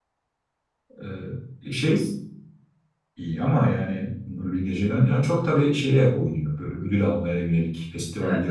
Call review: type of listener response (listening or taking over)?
taking over